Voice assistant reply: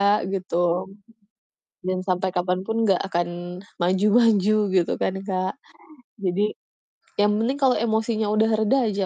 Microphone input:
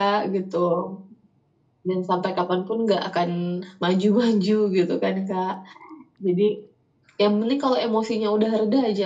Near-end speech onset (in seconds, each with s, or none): none